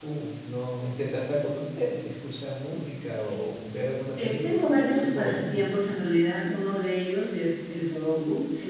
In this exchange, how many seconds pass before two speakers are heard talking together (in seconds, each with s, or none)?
4.2 s